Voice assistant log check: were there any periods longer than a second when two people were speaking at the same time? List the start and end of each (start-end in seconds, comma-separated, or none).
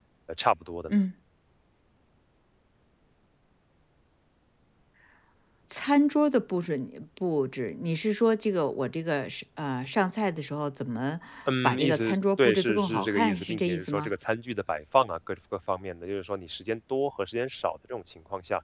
11.6-14.1